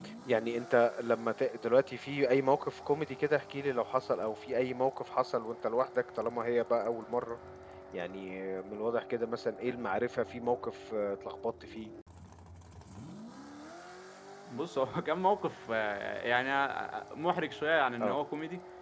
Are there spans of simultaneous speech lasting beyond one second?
No

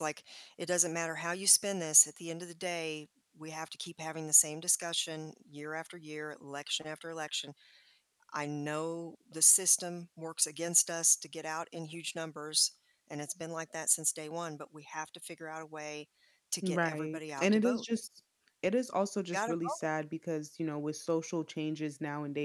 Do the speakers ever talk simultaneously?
Yes, from 16.6 s

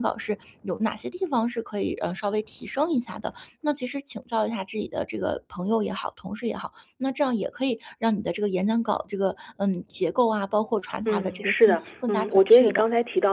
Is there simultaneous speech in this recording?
Yes, from 11.1 s

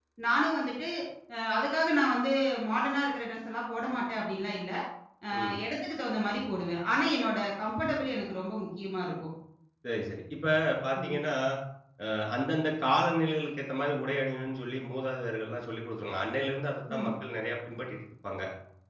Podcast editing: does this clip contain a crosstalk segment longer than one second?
No

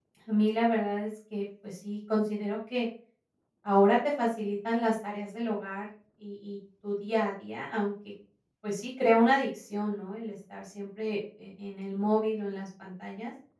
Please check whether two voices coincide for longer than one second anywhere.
No

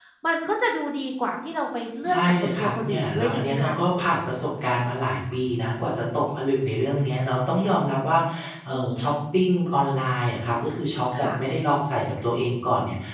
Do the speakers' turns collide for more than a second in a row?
Yes, from 2.1 s

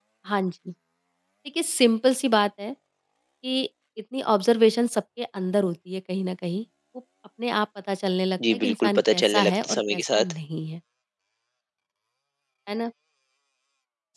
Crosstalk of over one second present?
Yes, from 8.4 s

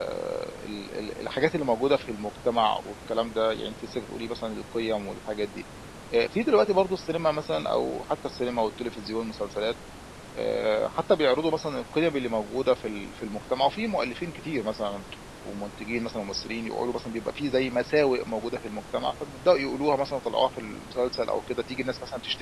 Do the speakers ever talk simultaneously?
No

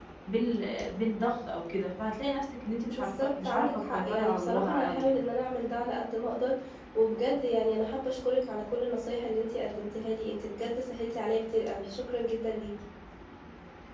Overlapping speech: Yes, from 2.9 s

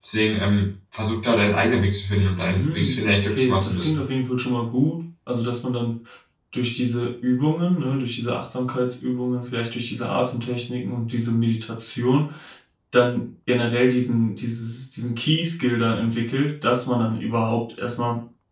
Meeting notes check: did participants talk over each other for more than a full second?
Yes, from 2.5 s

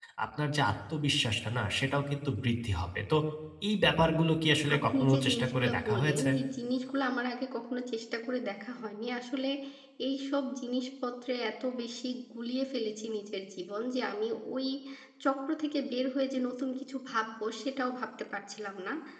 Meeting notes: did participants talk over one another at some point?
Yes, from 4.6 s

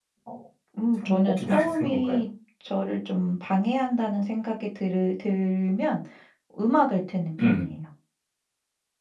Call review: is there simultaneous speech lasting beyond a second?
Yes, from 1.0 s

